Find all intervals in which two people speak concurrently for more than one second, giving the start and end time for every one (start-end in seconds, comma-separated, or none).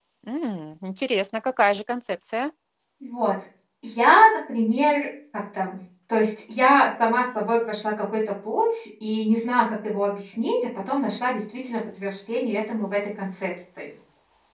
none